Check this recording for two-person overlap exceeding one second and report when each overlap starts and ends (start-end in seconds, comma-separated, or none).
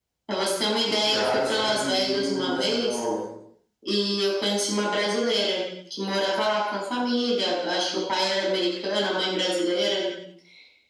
0.9-3.0